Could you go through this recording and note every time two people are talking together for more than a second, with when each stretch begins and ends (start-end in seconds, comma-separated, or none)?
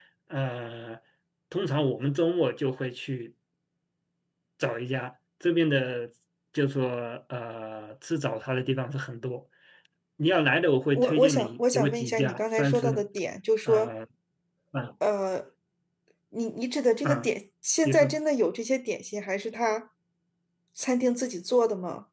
10.9-13.0